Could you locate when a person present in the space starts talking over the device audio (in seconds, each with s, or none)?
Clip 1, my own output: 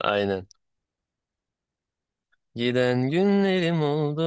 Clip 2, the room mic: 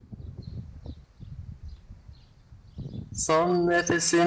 3.1 s